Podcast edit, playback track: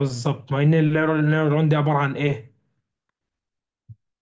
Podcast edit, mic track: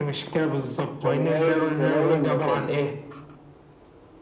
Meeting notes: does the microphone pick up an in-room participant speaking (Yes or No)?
Yes